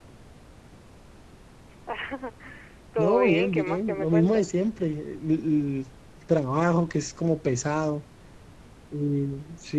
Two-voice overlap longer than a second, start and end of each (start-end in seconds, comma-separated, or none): 3.0-4.5